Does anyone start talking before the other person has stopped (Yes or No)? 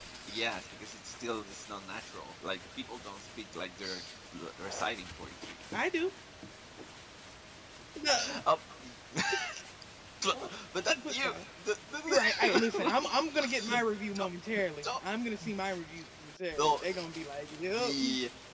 Yes